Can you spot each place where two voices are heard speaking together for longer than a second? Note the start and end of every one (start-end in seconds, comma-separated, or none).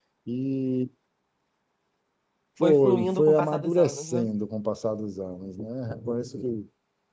2.6-4.3